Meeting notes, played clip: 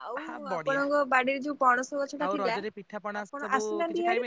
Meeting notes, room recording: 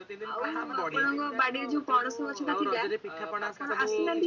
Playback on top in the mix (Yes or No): Yes